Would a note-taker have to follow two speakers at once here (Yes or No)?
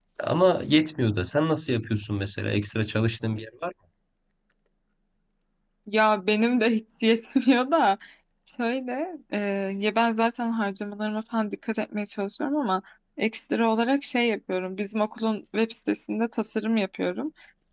No